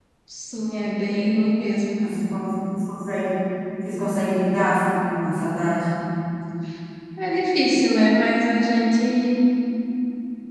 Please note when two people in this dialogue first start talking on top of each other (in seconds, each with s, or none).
none